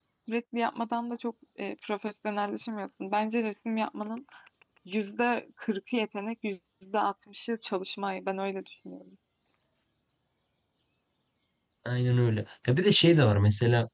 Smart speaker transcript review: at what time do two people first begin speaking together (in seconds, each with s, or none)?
none